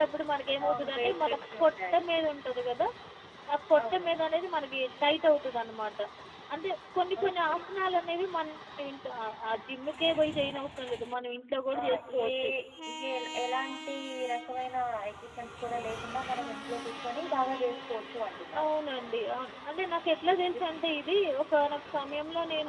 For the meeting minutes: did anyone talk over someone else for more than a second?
Yes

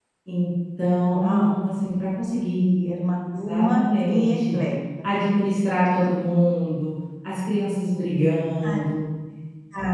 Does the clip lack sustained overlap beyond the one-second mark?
No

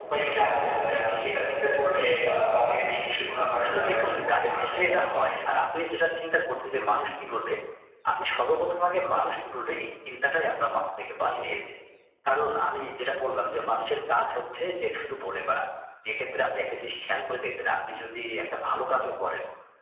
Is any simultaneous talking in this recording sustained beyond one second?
Yes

